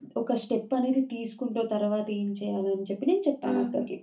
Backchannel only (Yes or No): No